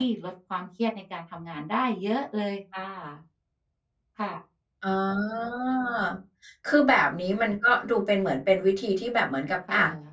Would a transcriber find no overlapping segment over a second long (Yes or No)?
Yes